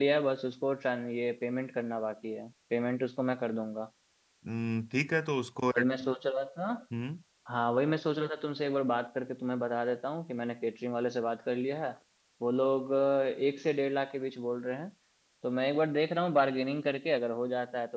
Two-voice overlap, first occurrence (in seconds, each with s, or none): none